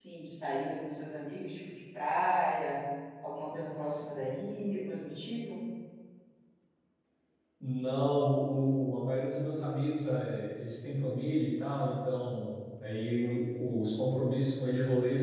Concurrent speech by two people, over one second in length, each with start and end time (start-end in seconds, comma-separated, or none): none